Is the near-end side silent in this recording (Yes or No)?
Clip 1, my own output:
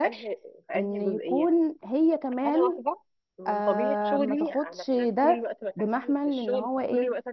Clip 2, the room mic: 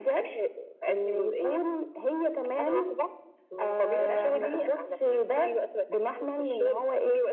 No